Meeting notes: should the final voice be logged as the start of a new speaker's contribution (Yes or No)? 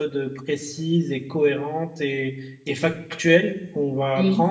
No